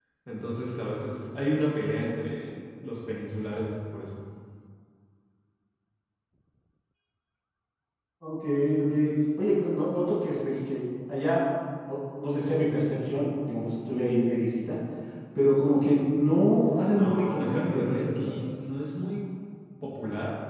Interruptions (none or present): present